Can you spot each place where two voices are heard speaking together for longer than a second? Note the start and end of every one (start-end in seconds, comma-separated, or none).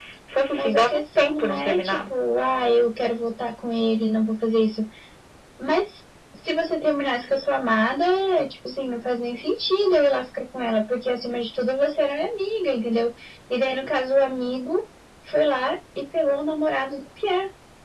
0.5-2.1